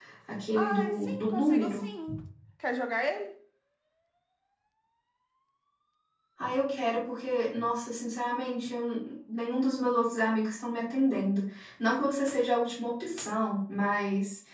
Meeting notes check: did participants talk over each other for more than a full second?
Yes, from 0.5 s

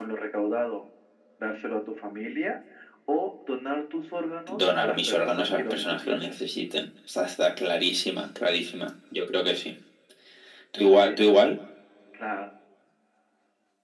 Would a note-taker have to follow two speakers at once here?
Yes, from 4.5 s

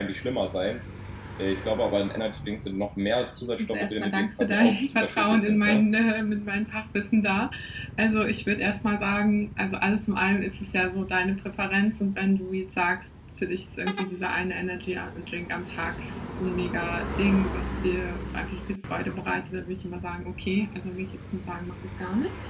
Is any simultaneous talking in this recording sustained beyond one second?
Yes, from 3.6 s

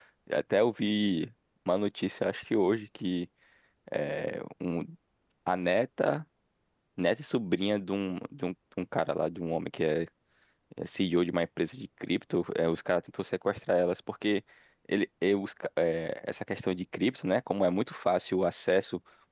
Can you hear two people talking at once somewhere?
No

